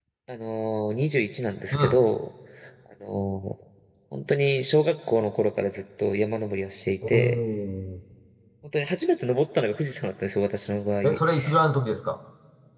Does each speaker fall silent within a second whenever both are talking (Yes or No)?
Yes